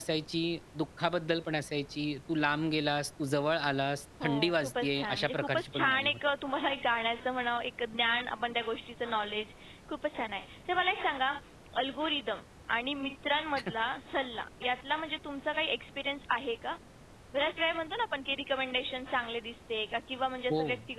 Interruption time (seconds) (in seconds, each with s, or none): 4.2 s